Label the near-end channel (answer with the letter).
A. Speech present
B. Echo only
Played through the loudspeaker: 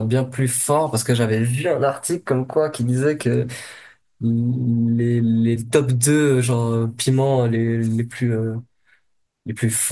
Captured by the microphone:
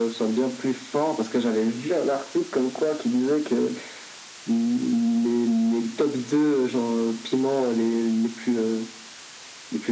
B